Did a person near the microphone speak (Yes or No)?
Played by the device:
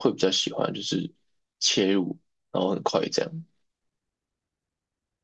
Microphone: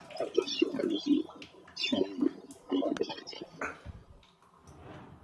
No